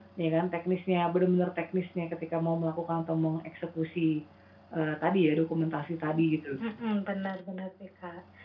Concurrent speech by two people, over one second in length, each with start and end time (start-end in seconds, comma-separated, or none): none